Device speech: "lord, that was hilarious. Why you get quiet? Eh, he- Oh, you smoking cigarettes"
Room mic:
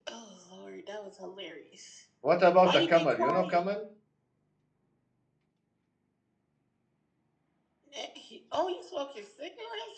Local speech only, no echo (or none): What about a camel? You know camel?